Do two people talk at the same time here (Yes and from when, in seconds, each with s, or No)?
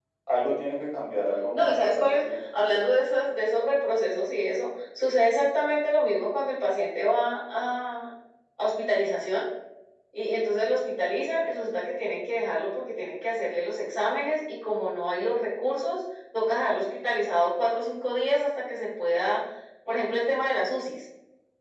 Yes, from 1.5 s